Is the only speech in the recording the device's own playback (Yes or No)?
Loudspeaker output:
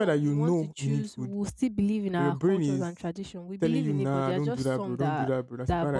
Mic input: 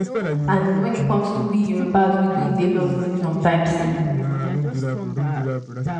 No